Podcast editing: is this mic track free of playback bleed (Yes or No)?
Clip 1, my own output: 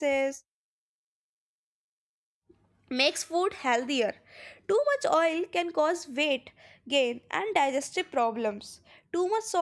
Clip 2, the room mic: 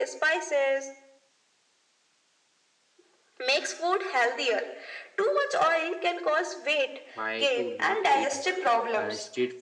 No